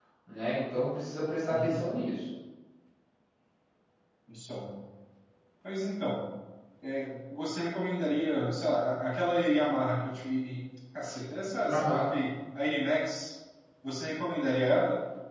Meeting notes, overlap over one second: none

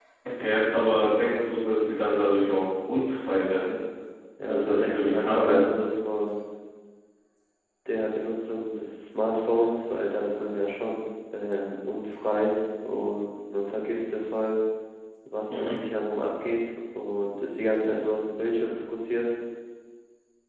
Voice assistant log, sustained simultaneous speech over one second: present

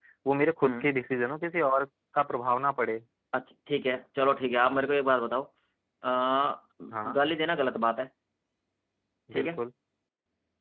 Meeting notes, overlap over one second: none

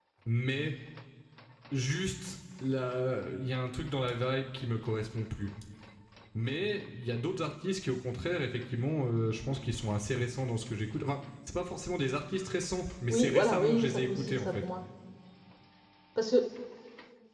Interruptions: present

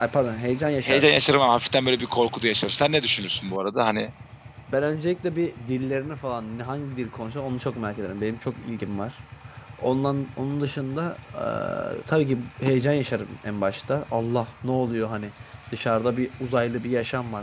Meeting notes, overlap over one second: none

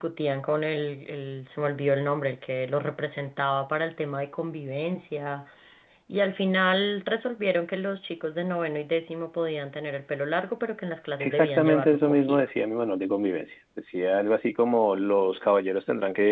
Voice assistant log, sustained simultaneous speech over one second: present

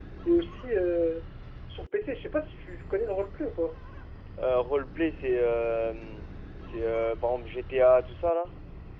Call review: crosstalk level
none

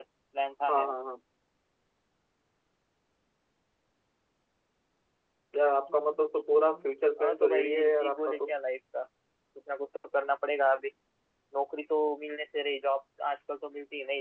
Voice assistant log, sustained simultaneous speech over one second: present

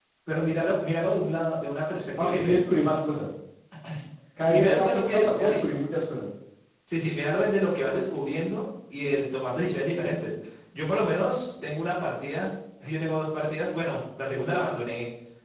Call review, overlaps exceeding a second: present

